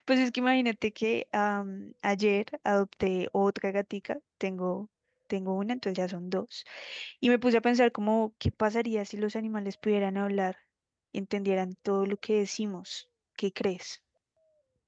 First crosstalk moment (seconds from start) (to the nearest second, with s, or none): none